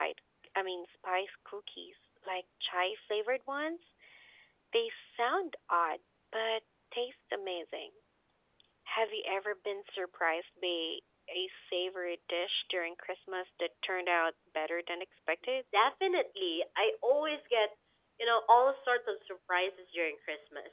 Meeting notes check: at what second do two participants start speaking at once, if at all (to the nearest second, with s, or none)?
none